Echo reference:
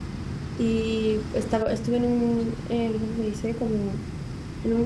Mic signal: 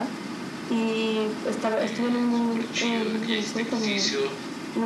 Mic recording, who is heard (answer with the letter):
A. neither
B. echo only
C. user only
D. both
D